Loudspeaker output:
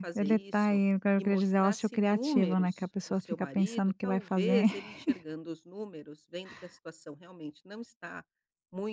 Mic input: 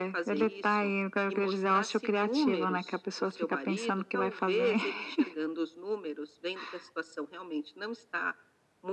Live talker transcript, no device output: none

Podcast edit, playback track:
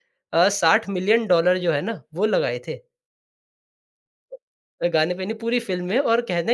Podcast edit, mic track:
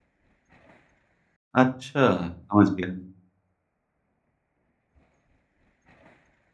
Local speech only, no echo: अच्छा, समझ गया मैं।

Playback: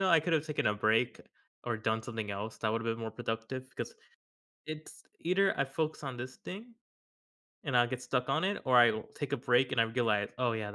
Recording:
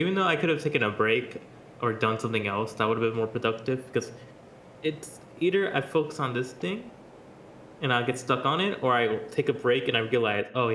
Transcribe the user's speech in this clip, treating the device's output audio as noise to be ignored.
none

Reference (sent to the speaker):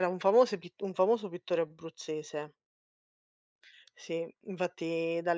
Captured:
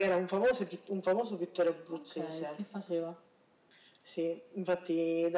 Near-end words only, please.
Okay, che faceva?

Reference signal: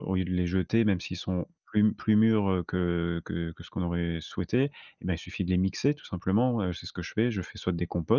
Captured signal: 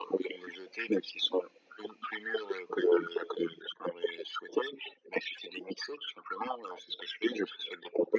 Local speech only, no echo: none

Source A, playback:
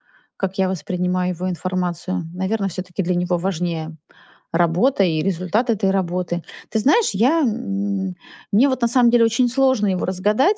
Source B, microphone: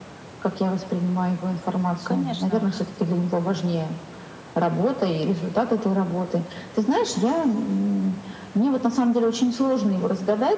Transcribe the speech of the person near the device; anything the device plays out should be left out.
Конечно.

